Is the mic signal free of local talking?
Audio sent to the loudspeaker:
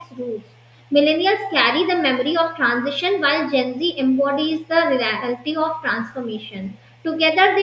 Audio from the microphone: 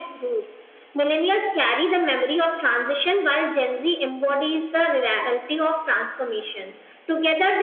Yes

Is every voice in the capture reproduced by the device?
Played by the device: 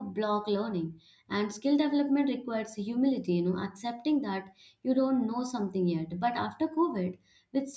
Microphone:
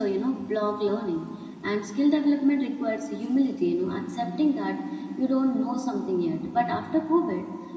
Yes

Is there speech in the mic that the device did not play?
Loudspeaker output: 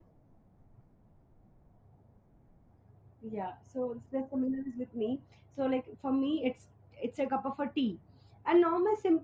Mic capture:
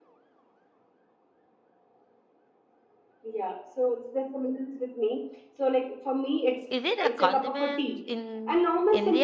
Yes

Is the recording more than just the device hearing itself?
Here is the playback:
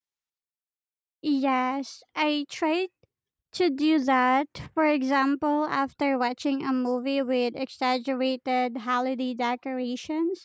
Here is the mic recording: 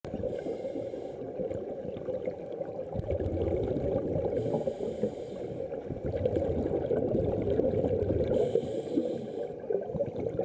No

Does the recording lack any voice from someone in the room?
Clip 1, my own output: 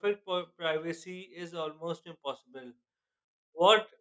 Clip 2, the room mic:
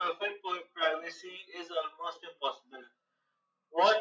Yes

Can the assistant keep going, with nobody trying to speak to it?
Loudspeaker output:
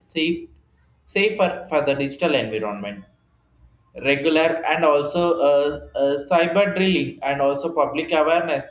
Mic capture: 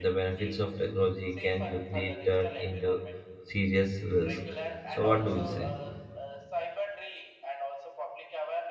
No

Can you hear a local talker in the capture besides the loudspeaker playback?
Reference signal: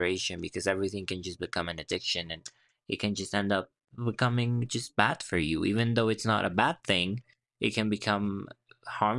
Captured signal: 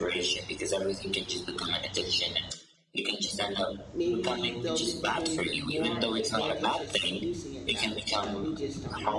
Yes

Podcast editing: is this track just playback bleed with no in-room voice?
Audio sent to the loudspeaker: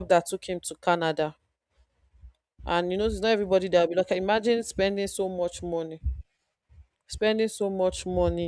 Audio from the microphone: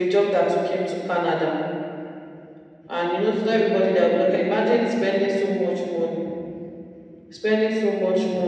Yes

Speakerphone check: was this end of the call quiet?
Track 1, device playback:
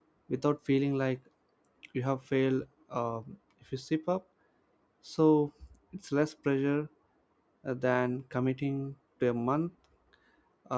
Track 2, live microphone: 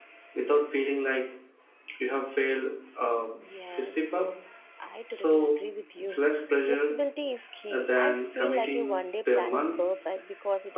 No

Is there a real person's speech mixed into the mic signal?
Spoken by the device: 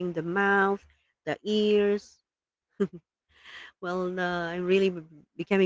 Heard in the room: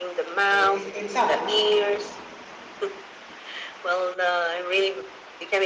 Yes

